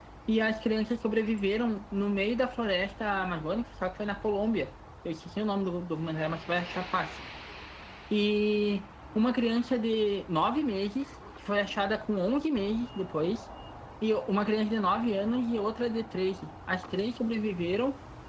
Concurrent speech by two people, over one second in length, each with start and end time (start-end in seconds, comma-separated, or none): none